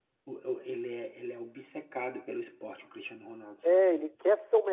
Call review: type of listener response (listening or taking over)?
taking over